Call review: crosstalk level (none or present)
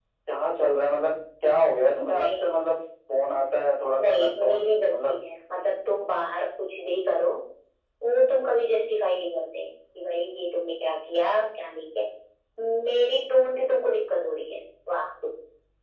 present